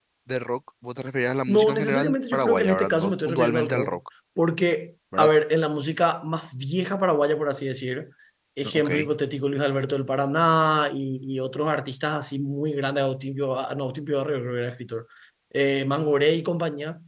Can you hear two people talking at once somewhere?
Yes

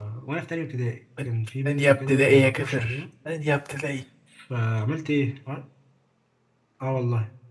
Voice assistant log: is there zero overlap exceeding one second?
No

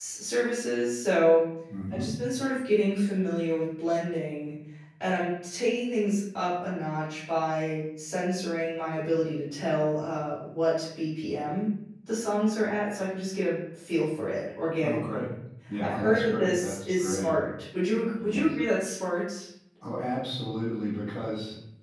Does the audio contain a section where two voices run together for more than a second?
Yes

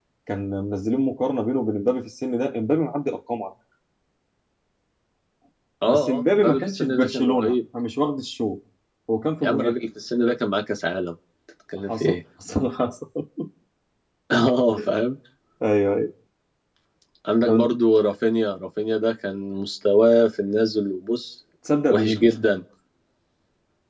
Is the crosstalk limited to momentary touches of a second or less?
No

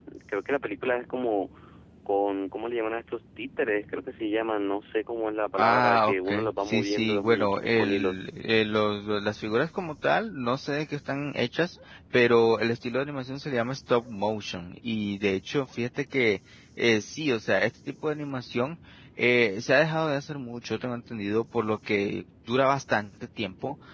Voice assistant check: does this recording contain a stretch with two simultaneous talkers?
Yes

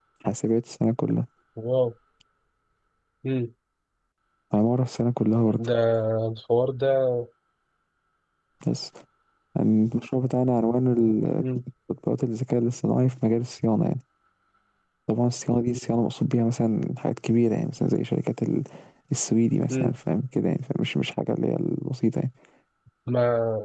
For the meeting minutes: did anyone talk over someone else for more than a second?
No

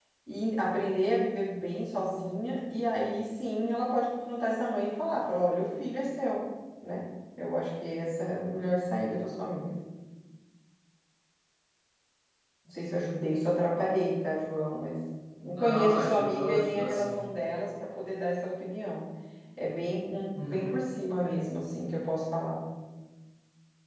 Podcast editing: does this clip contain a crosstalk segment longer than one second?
Yes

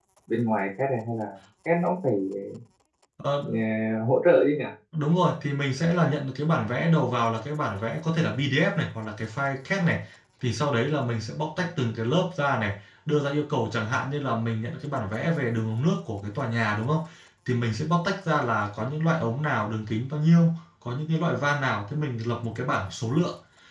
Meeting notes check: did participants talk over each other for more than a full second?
No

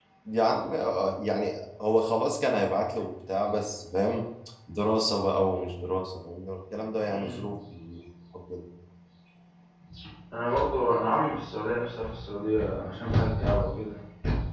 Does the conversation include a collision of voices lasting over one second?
No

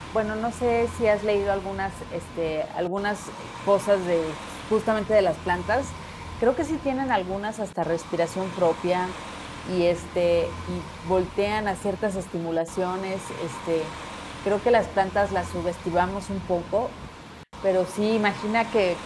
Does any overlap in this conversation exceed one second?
No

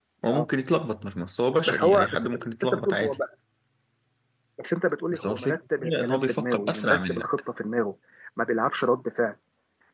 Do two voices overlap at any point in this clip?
Yes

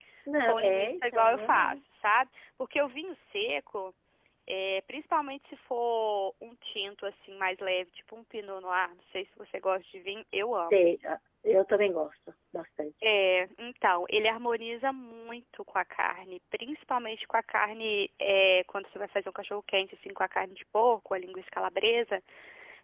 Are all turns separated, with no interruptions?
No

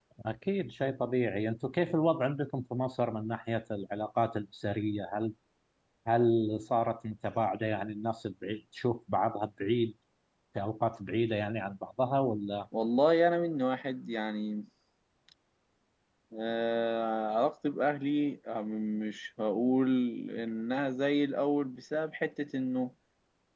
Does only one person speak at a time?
Yes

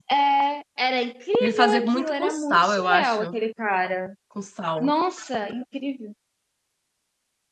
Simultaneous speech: Yes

